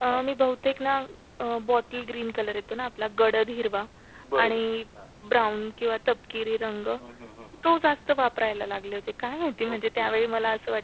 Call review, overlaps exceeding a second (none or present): none